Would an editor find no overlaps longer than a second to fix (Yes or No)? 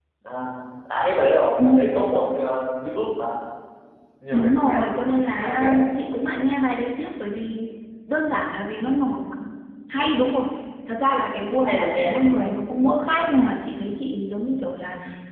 No